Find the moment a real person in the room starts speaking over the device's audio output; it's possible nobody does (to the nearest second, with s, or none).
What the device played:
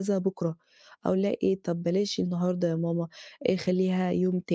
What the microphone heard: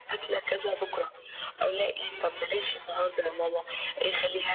none